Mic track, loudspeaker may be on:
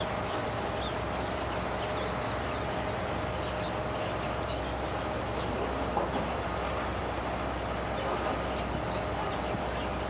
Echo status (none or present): none